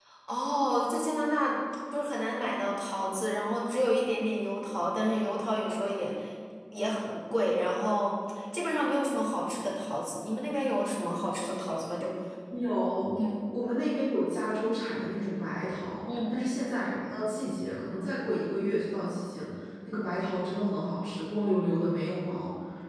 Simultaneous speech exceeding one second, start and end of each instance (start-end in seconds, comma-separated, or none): none